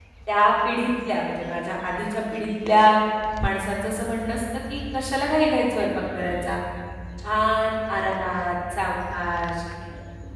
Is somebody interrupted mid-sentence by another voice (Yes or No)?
No